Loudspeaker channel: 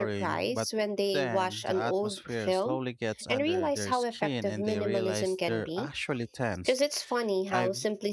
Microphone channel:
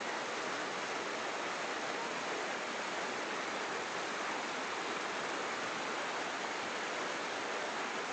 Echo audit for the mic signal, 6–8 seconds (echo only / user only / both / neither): neither